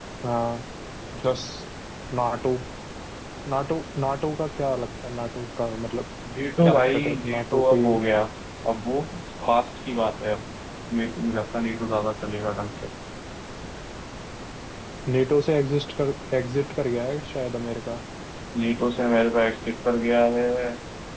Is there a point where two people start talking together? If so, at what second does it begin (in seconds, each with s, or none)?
6.6 s